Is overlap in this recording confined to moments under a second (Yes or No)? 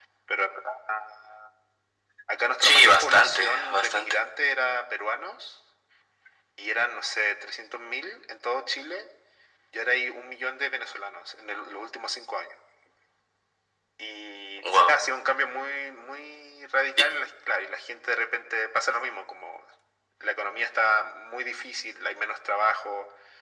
No